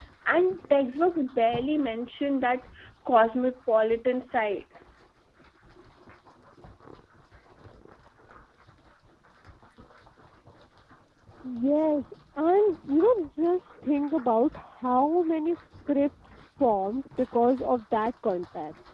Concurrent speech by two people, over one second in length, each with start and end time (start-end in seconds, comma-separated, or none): none